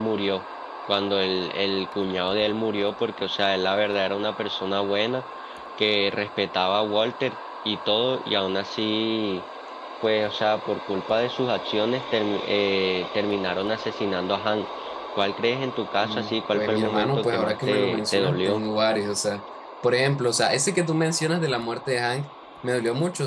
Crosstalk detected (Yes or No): Yes